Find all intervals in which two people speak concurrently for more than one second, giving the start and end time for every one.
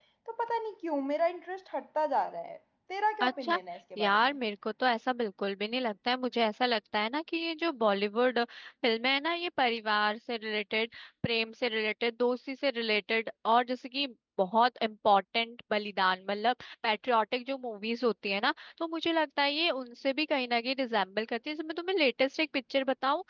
none

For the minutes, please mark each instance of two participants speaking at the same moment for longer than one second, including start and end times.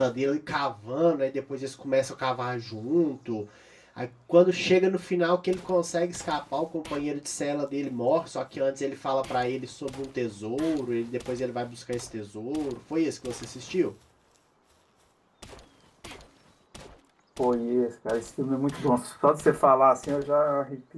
none

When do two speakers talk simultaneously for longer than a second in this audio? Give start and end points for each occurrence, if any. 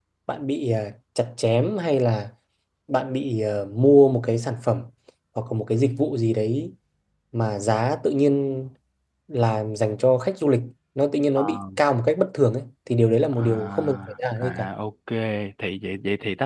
13.3-14.7

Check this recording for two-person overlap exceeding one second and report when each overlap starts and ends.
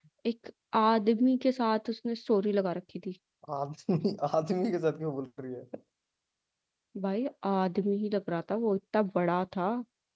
none

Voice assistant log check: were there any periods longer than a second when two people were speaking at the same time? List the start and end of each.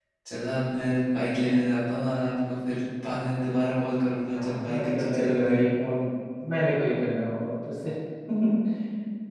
4.3-5.6

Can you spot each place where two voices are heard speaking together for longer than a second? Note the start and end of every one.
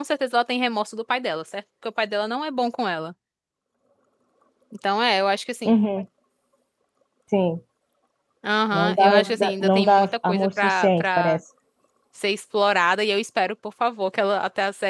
8.7-11.4

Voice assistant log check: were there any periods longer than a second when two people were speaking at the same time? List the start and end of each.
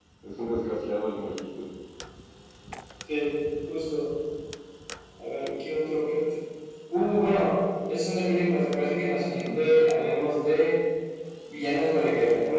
none

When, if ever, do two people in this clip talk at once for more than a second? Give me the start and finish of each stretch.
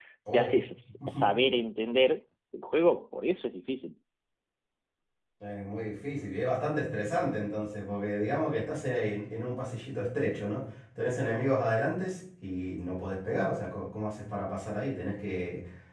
none

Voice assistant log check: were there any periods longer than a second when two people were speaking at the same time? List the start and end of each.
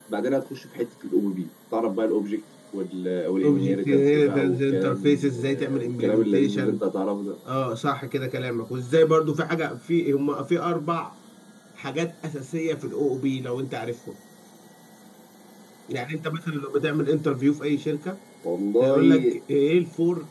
3.4-6.8

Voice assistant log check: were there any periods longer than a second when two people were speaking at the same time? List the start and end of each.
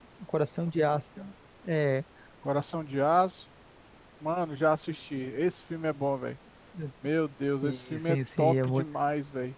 7.6-8.8

